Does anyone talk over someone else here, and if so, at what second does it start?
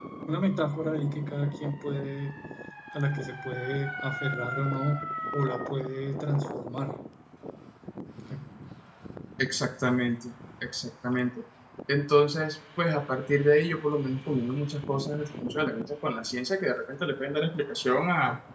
none

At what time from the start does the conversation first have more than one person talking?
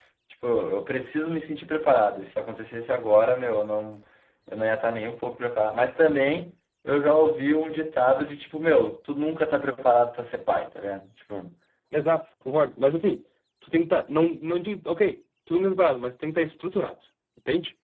none

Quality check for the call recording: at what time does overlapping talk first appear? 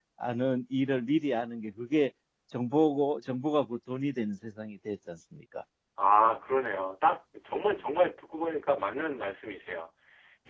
none

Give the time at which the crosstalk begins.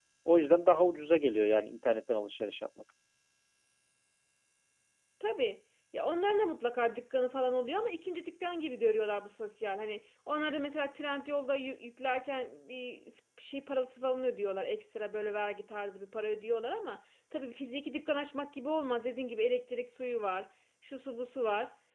none

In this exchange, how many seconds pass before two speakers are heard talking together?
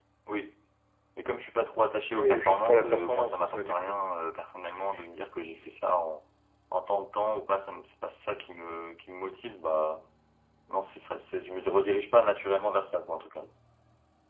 2 s

